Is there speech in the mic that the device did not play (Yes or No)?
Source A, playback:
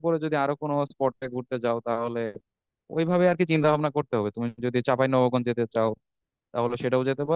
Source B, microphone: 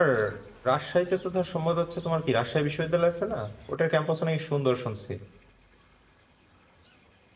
Yes